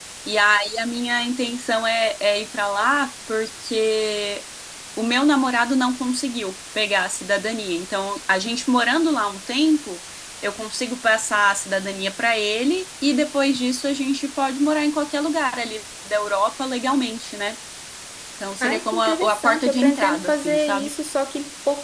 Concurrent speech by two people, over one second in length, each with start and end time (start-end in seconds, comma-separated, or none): 18.6-20.9